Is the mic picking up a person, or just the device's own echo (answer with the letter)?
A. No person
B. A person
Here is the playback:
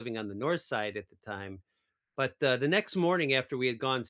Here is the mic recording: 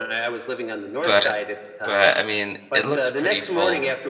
B